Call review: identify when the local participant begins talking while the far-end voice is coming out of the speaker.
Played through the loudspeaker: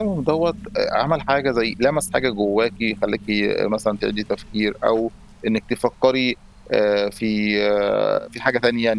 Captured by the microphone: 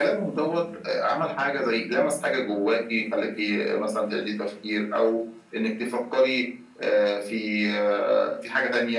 none

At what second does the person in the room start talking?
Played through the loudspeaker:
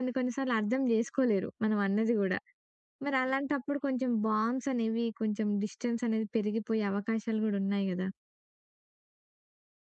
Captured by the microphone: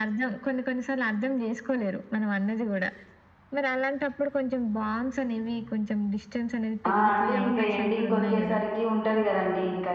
6.9 s

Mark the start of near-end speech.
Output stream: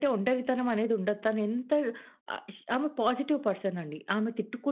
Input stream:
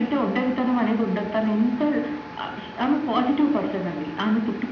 none

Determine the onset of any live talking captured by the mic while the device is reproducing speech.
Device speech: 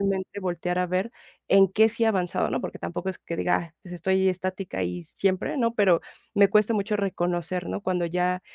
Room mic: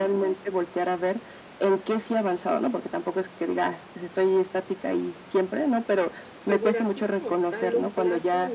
6.4 s

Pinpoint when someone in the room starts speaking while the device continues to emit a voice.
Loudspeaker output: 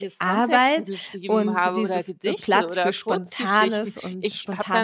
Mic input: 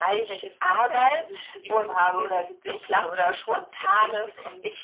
none

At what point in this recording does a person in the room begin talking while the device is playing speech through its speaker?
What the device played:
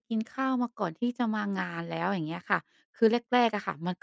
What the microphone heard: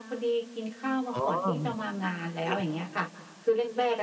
1.1 s

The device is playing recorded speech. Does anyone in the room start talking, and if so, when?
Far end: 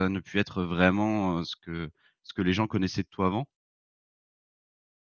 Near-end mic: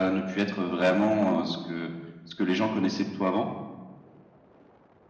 none

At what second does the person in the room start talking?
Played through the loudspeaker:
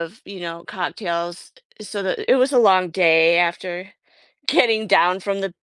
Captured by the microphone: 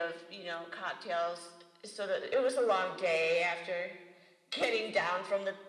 none

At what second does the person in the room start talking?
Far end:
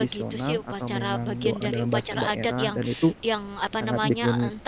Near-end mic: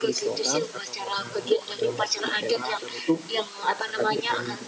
none

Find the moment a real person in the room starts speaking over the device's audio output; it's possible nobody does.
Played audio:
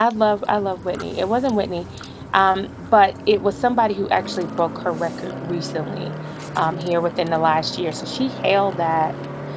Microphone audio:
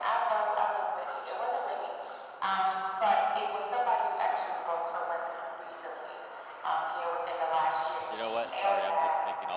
8.1 s

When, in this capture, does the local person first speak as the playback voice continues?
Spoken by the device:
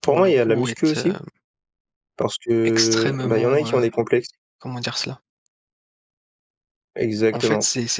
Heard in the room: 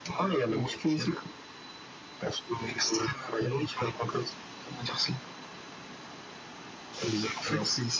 none

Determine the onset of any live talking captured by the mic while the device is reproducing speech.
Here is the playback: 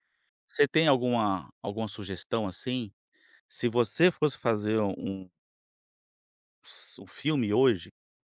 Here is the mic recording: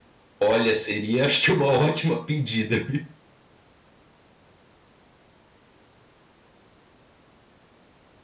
0.4 s

